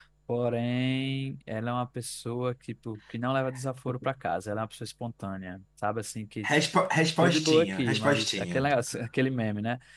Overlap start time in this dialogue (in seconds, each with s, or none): 7.2 s